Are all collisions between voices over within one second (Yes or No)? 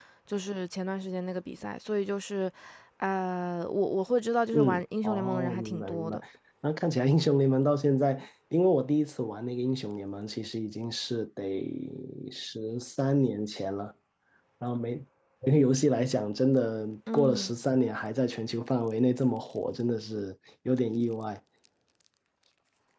No